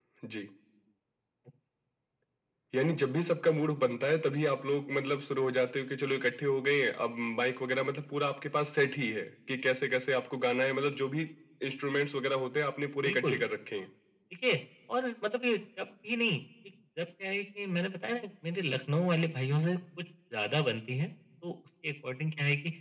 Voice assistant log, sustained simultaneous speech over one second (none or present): none